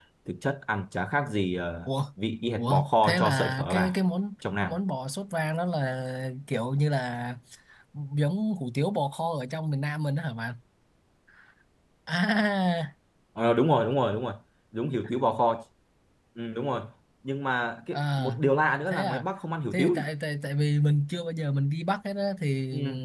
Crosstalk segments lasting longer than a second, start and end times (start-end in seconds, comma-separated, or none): 2.6-4.0